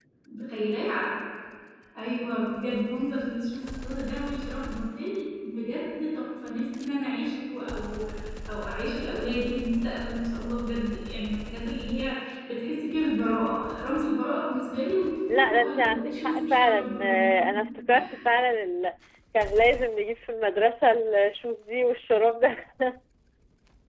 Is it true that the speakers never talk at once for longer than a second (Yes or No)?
No